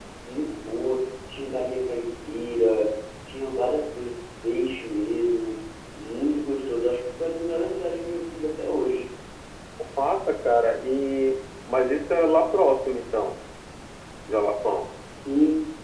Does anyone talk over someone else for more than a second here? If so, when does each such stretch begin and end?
none

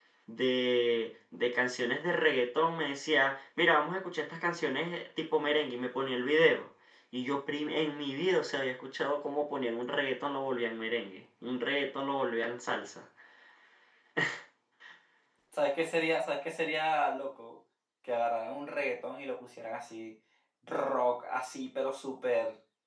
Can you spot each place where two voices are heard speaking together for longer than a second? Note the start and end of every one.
none

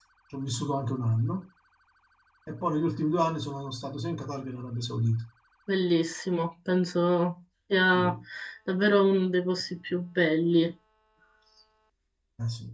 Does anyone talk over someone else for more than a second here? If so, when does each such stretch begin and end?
none

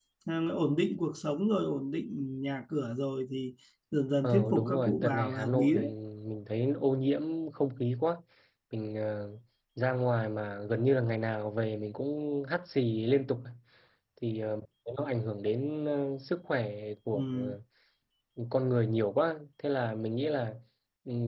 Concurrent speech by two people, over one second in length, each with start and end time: 4.2-5.7

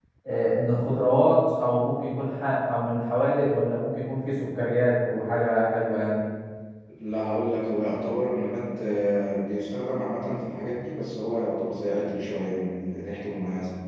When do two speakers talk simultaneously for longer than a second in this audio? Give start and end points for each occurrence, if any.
none

